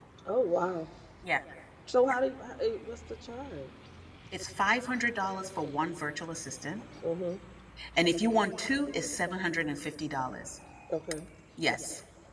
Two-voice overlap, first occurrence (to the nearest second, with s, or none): none